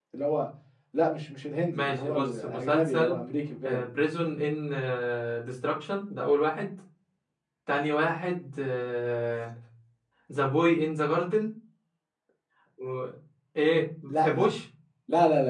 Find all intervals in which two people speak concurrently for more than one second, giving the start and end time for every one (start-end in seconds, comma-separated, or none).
1.7-3.2